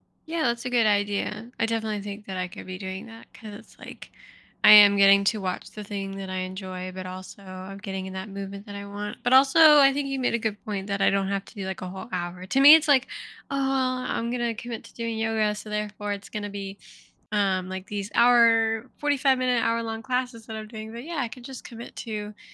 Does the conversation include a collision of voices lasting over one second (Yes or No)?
No